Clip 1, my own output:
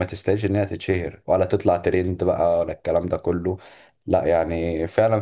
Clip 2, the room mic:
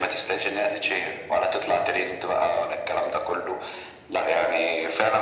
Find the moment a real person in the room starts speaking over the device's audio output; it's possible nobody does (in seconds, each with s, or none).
none